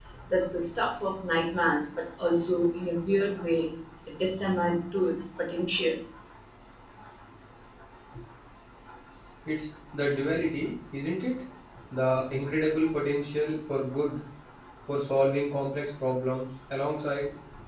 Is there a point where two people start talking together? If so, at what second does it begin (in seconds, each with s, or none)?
none